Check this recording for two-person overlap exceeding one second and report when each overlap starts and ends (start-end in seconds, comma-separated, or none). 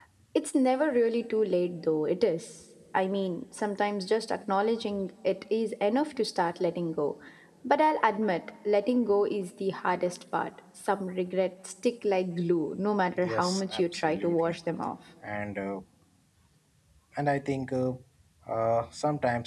13.2-14.6